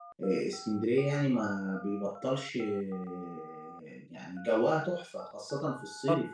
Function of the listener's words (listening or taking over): listening